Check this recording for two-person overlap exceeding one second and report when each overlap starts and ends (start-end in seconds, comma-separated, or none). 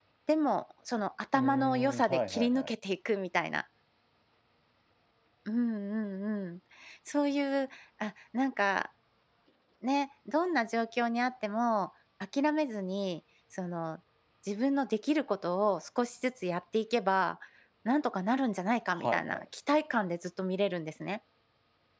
1.3-2.7